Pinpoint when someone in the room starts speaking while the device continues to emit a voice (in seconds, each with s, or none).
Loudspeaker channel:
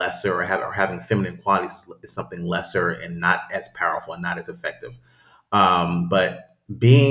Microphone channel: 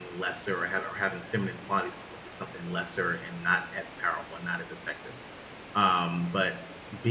none